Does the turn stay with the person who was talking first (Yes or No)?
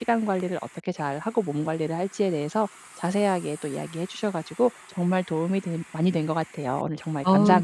No